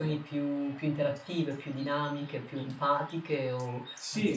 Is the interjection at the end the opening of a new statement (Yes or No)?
Yes